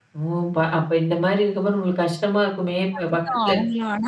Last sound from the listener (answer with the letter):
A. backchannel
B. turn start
B